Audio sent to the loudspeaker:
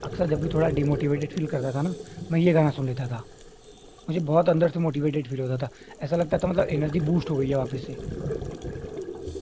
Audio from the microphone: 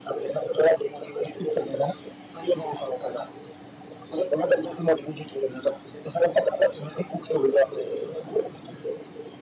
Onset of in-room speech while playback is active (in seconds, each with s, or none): none